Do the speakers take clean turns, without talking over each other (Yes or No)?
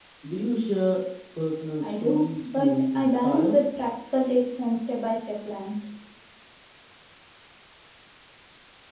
No